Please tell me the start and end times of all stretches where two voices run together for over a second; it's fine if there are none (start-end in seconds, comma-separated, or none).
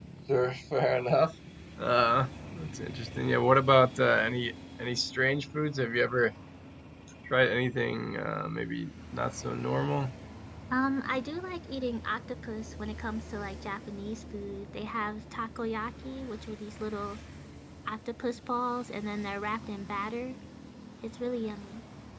none